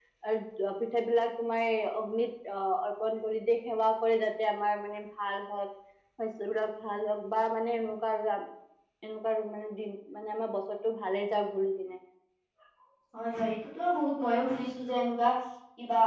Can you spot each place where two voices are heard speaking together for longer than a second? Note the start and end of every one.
none

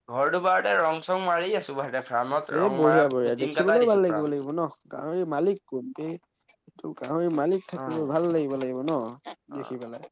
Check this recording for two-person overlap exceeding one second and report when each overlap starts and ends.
2.8-4.3

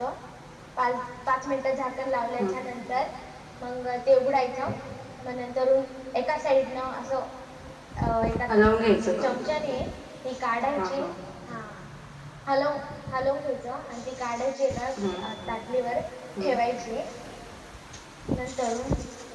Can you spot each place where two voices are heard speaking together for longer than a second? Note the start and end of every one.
none

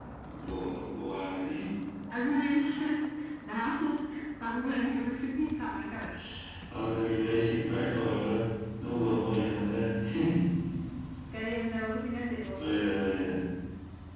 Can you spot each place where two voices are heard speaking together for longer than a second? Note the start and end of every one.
none

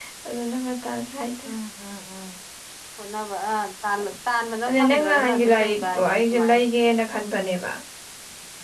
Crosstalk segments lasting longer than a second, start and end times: 4.7-6.6

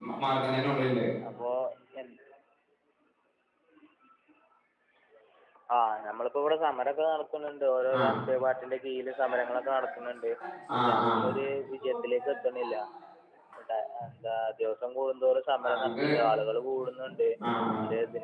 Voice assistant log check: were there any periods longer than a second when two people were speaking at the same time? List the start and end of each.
none

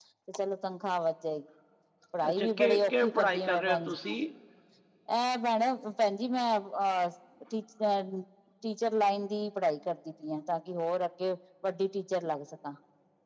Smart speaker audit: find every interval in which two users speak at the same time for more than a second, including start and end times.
2.3-4.0

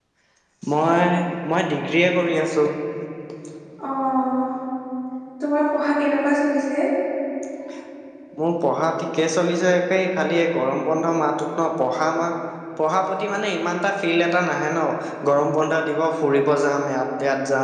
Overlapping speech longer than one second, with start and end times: none

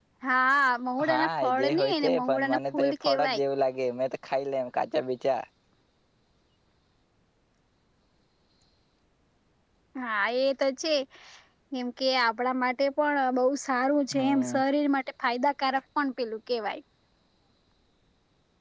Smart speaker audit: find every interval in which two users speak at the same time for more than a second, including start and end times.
1.1-3.4

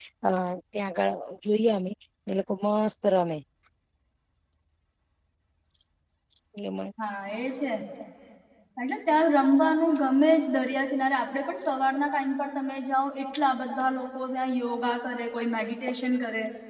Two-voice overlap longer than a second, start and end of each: none

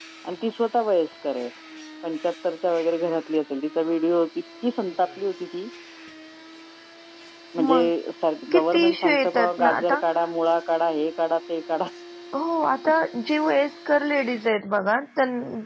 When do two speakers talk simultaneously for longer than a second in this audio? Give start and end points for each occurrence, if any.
8.5-10.0

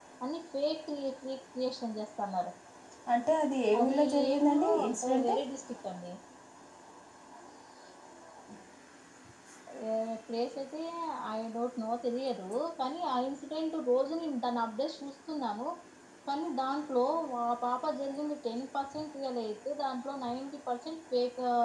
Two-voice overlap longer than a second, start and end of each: 3.8-5.3

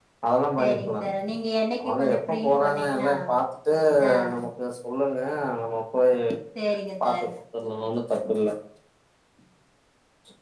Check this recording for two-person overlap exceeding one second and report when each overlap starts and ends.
1.8-3.1

